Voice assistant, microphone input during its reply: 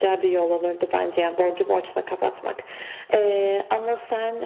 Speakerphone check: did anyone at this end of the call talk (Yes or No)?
No